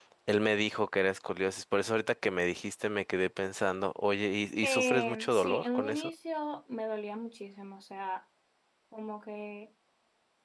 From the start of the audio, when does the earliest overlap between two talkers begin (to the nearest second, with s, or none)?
5 s